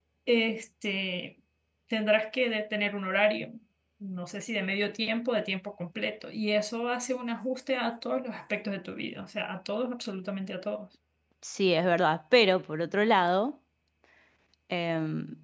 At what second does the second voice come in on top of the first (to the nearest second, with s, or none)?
none